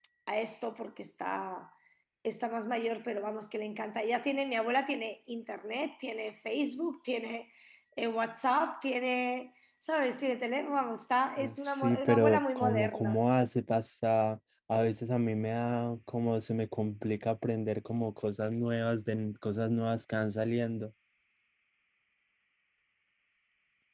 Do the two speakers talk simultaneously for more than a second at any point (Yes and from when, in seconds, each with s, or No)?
Yes, from 11.4 s